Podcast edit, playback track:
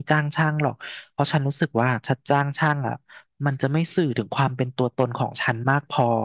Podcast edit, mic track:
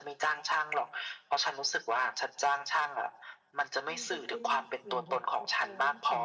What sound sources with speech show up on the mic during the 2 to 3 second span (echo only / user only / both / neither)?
echo only